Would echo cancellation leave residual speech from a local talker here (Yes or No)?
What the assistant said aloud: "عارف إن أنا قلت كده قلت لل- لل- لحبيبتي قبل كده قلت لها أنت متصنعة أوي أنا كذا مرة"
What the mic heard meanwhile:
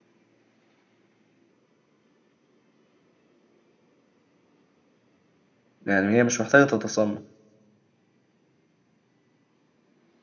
Yes